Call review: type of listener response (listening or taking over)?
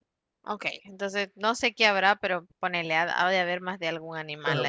taking over